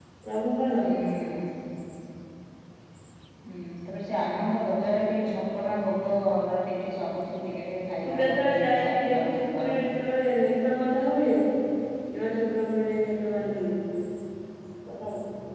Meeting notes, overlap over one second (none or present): present